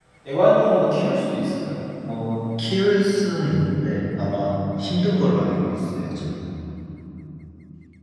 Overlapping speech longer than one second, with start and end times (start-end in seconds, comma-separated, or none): none